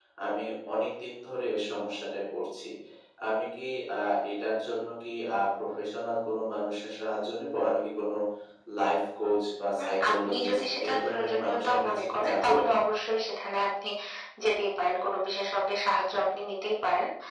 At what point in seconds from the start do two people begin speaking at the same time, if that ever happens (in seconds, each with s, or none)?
9.8 s